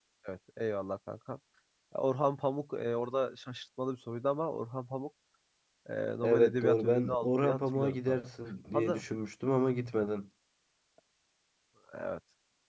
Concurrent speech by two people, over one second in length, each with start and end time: 6.2-8.2

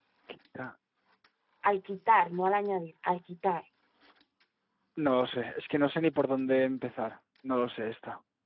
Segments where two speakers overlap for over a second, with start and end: none

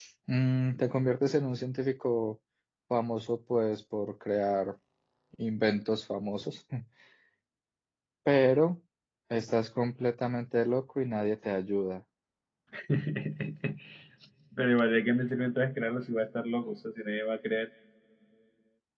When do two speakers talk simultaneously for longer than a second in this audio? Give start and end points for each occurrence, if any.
none

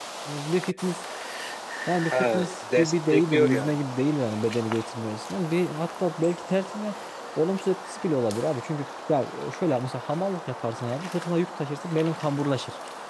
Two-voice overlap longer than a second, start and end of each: 2.1-3.8

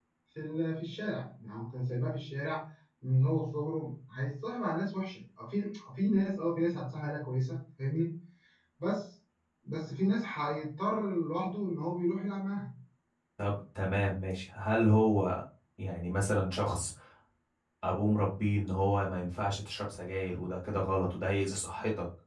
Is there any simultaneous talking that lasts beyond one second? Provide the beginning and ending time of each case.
none

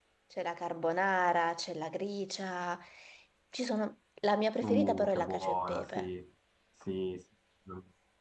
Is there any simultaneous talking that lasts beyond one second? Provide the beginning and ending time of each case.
4.6-6.1

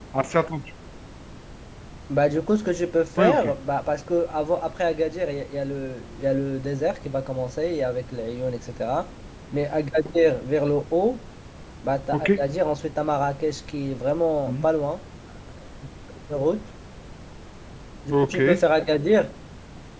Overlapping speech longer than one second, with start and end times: none

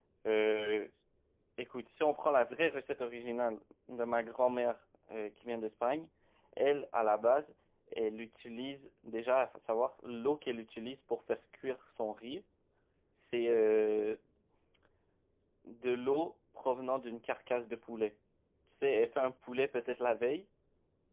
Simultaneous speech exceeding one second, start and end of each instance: none

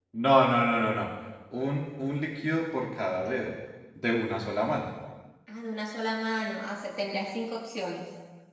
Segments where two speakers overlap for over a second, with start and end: none

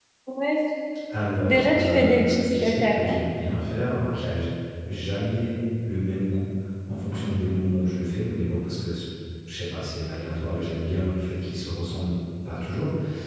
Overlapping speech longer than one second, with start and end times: 1.5-3.2

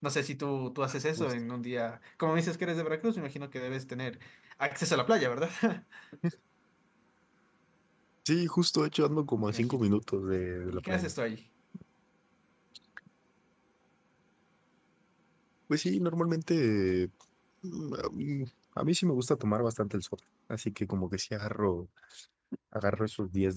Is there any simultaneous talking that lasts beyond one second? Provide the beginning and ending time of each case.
none

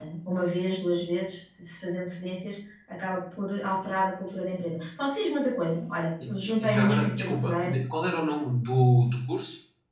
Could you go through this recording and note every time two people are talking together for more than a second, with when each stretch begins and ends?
6.3-7.8

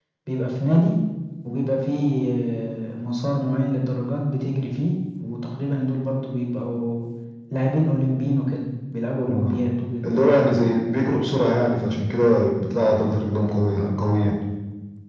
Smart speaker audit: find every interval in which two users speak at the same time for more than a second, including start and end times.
none

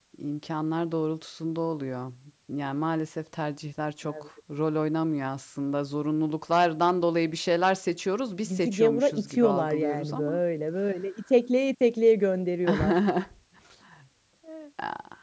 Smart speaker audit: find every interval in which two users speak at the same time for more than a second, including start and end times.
8.4-10.4

